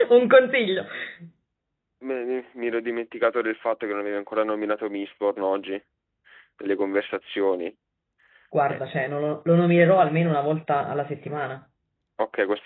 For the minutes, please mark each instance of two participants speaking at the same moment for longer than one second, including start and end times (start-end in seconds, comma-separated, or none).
none